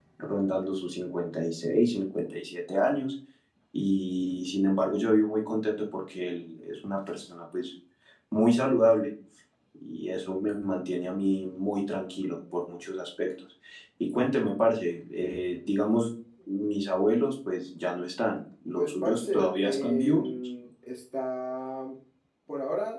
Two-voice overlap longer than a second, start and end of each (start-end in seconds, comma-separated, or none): 18.8-20.3